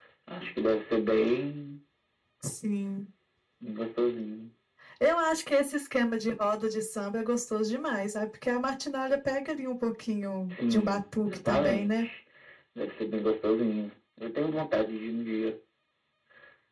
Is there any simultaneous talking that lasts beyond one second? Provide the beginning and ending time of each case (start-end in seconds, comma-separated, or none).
10.5-12.0